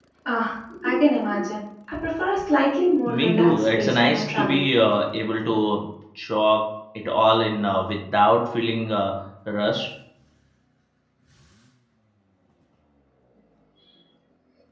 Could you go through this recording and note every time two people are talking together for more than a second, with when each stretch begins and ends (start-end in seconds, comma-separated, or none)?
3.2-4.6